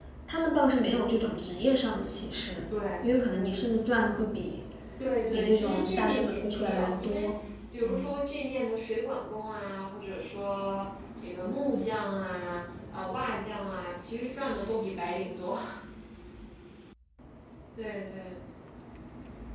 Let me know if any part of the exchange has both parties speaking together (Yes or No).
Yes